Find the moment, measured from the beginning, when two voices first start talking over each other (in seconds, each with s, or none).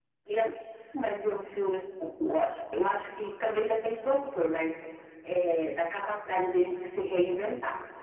none